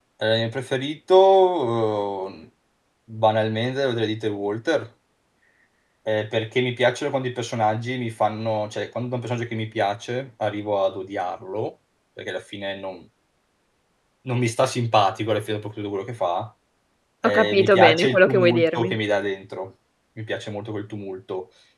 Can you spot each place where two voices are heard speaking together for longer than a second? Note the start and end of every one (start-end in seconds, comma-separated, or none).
17.2-18.9